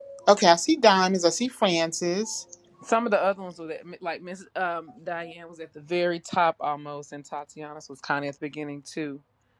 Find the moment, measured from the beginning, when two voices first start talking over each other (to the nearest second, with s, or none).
none